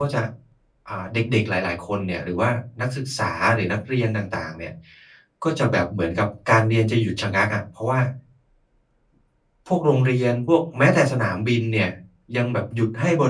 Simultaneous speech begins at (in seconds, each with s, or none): none